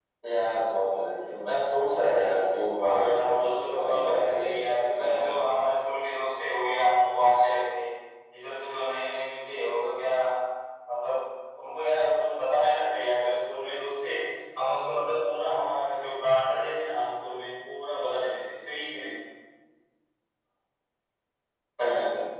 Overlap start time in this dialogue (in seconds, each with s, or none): 2.8 s